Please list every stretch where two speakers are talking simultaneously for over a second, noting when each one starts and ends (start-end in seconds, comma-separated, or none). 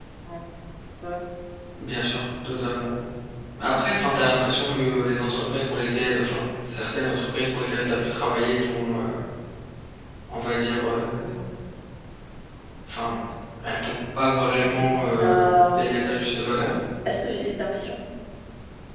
14.6-15.9